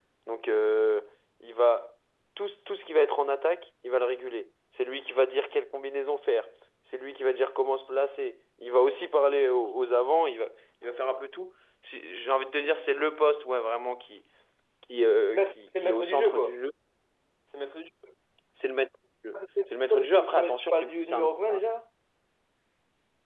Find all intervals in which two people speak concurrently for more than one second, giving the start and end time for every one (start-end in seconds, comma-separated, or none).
15.3-16.6, 20.1-21.6